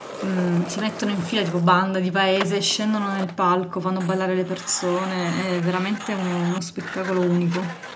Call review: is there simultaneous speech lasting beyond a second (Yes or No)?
No